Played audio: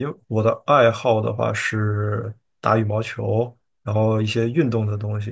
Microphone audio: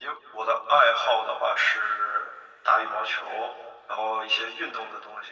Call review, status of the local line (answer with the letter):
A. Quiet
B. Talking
A